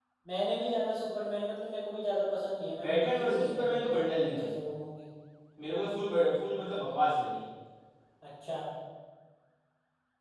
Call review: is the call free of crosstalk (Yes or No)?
No